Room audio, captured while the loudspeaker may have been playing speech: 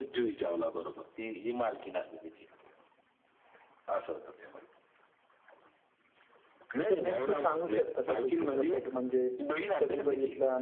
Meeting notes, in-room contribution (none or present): present